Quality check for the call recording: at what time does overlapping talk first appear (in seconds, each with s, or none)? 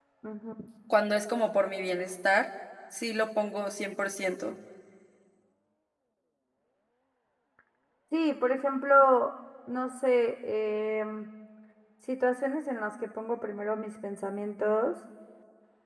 none